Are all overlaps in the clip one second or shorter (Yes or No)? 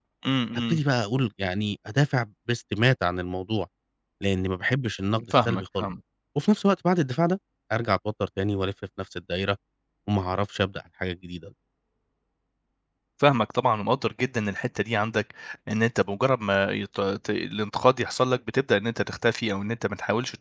Yes